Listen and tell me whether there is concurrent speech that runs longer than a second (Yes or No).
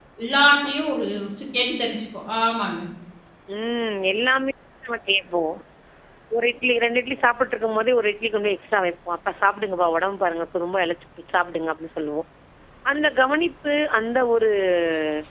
No